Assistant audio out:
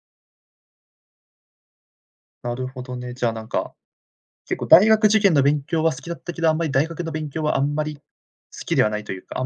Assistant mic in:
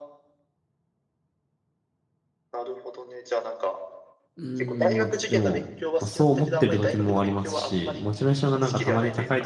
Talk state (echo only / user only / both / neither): both